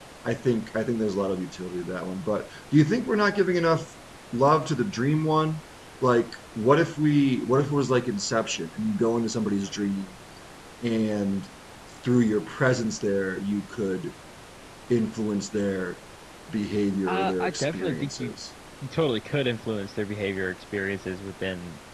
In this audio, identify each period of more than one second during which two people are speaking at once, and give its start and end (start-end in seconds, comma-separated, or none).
17.1-18.3